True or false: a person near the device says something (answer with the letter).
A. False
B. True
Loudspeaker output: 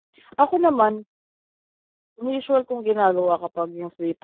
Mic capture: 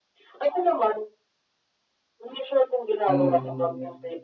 B